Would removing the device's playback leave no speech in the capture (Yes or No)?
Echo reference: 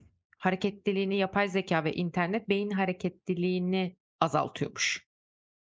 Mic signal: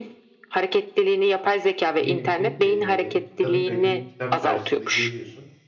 No